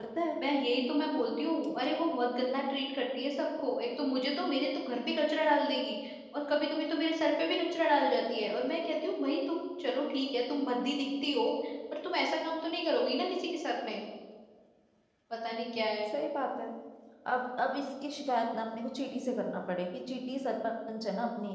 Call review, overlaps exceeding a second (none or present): none